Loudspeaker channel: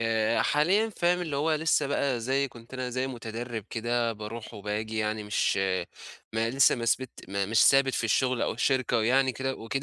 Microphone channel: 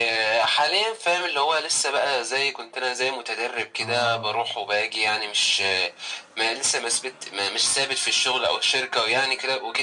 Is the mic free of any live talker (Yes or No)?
No